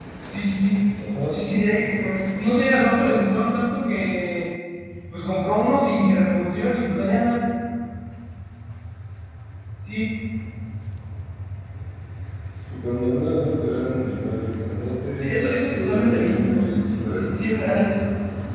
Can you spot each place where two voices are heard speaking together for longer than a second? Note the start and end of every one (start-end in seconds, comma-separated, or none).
15.2-17.6